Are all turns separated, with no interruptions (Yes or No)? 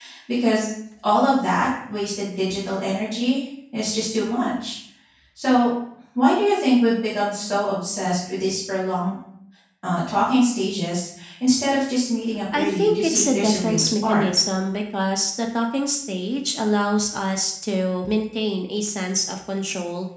No